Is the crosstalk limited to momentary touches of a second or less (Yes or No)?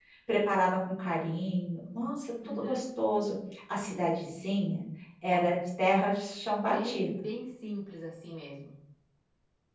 Yes